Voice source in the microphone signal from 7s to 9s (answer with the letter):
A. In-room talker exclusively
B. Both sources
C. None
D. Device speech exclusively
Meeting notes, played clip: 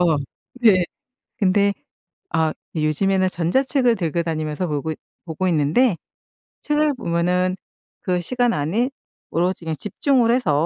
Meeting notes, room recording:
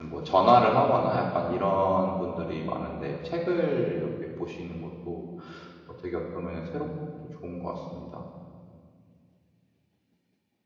A